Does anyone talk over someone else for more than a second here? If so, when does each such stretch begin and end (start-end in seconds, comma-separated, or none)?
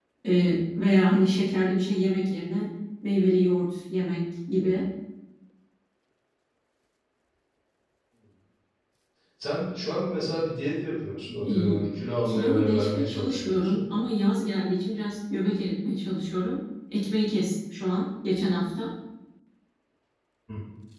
12.2-13.8